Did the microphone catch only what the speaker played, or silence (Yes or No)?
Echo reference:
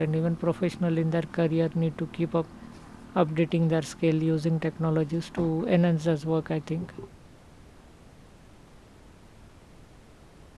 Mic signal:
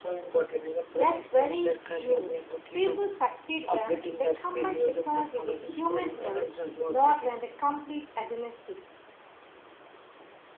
No